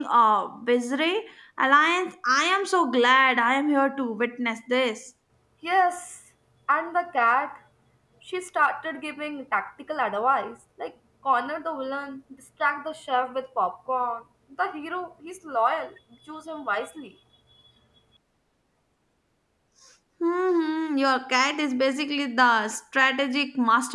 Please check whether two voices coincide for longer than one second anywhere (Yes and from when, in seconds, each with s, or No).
No